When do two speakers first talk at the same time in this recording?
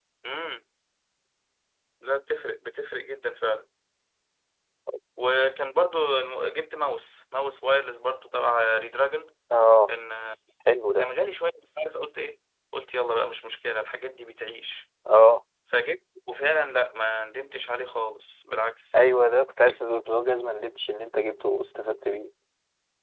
none

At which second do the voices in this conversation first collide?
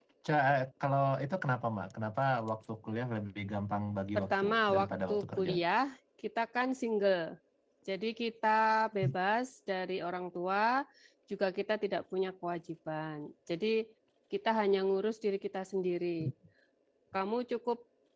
4.2 s

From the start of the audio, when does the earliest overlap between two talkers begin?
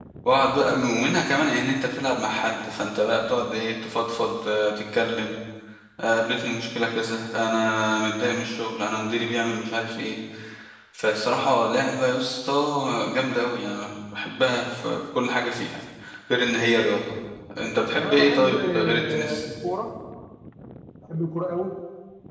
18.0 s

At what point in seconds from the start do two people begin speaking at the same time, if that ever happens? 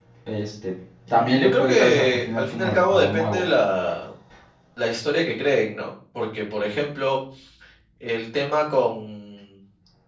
1.1 s

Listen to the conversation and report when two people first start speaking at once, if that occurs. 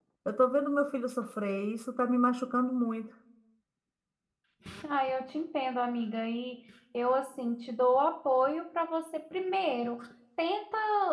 none

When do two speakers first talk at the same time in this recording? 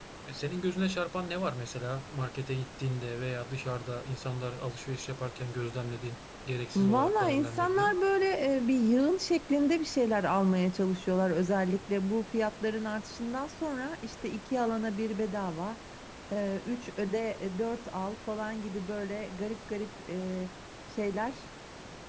6.8 s

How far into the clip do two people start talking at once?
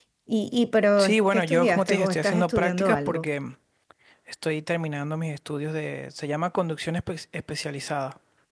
1.0 s

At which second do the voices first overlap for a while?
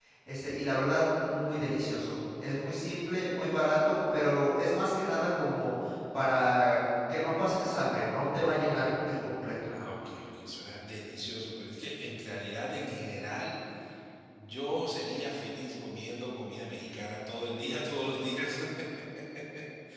none

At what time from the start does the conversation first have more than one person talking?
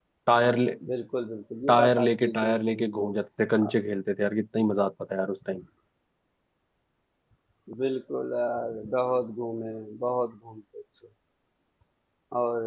1.7 s

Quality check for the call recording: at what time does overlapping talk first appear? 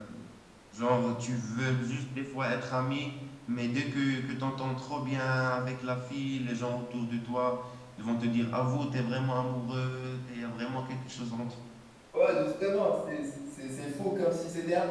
none

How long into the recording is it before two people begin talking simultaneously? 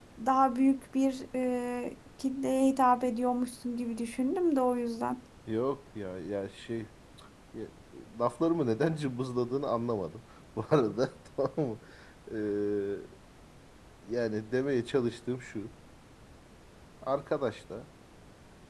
none

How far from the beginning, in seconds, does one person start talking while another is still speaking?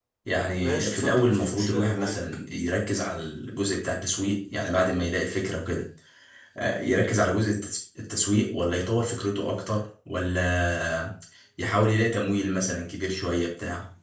0.6 s

